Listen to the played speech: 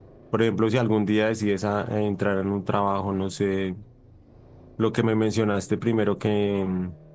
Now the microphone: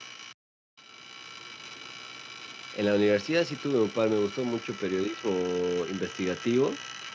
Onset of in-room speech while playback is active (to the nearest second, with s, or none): 3 s